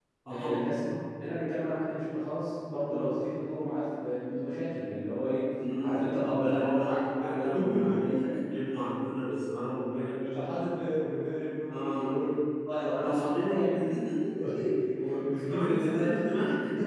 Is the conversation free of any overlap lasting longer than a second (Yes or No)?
No